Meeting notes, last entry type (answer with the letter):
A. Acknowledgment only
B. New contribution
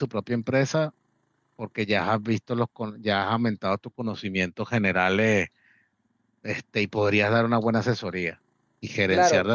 A